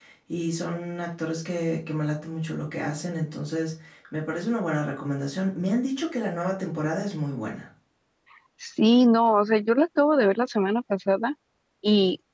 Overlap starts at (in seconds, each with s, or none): none